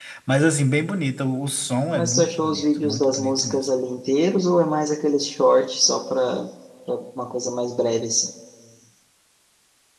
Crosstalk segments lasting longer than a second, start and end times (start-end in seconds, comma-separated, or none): 1.9-3.7